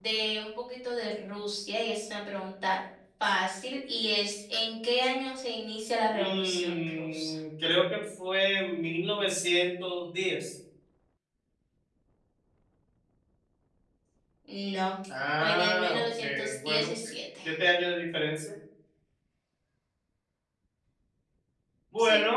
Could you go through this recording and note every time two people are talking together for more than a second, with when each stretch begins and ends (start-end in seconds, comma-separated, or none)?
6.1-7.3, 15.4-16.9